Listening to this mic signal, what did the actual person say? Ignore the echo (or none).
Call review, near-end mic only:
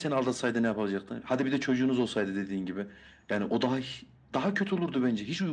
none